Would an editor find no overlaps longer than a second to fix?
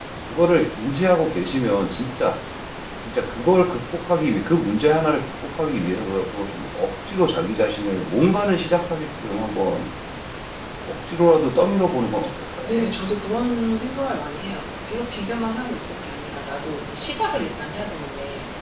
Yes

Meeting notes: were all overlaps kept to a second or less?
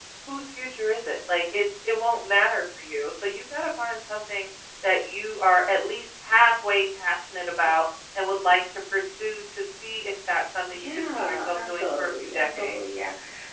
No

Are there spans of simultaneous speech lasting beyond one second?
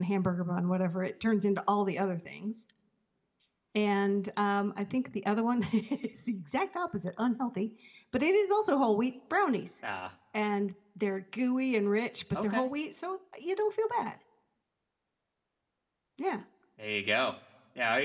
No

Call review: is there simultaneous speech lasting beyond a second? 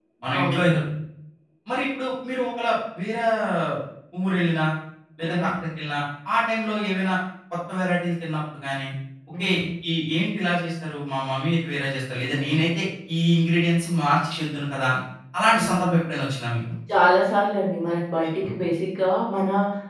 No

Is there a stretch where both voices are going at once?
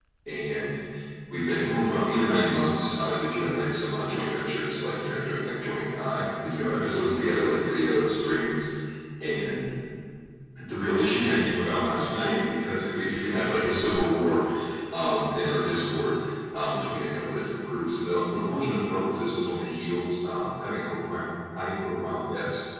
No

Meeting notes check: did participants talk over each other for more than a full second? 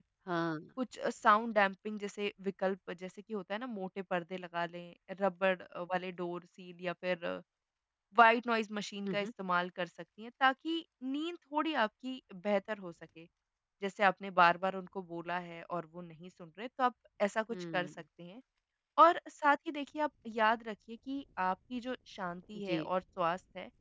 No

